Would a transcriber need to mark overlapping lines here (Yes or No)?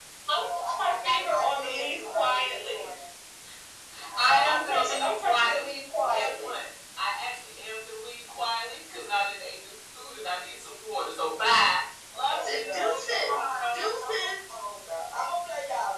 Yes